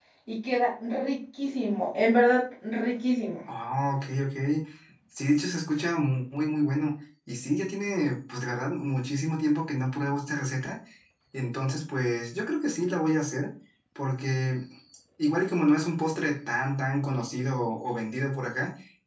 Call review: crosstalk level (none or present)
none